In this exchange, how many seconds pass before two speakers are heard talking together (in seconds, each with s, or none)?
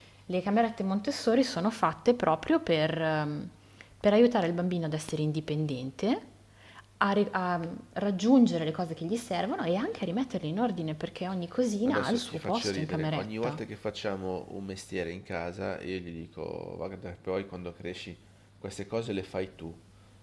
11.8 s